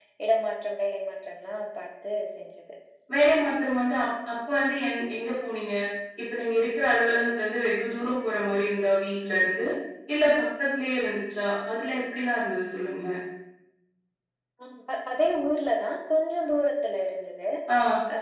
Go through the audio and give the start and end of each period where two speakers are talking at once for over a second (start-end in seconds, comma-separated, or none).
none